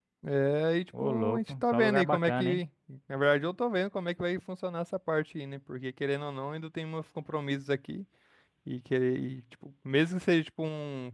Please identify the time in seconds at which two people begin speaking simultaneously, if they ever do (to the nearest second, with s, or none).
1 s